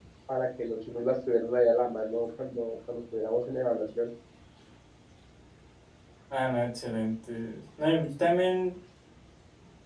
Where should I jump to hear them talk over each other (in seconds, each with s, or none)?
none